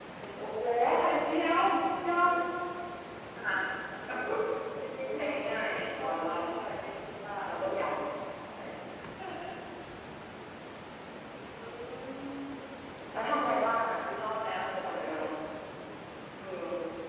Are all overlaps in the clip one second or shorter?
No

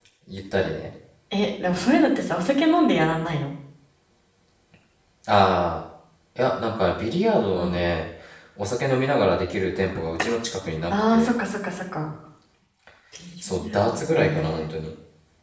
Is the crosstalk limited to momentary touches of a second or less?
No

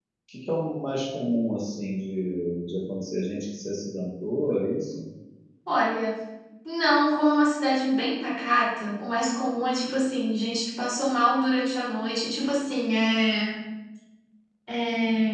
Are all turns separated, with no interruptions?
Yes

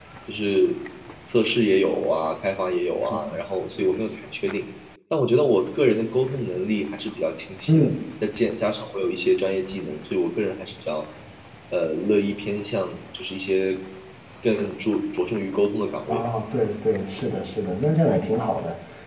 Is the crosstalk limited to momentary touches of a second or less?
Yes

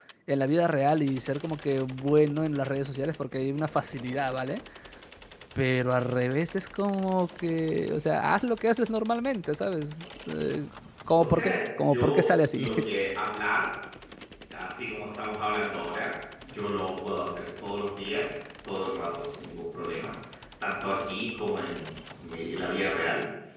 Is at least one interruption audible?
Yes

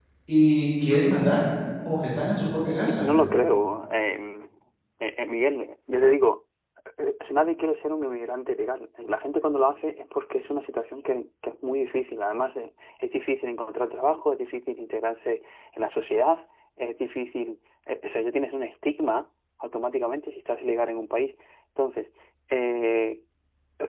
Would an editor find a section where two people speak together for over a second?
No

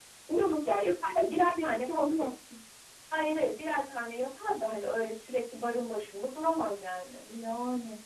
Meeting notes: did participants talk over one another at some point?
Yes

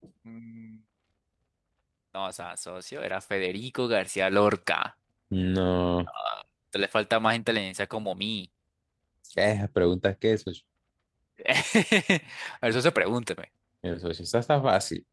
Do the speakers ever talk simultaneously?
No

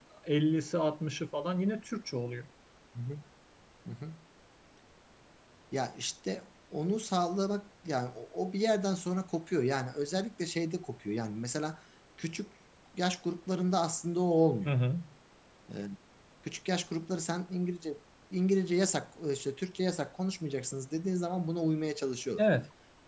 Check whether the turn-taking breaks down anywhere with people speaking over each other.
No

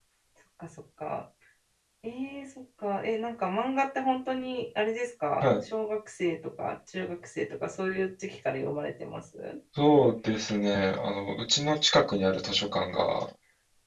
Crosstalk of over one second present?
No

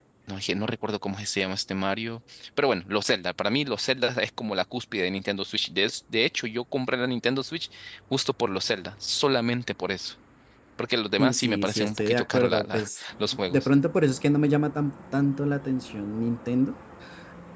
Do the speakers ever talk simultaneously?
Yes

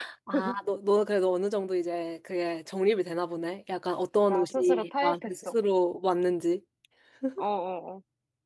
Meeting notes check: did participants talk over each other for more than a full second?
Yes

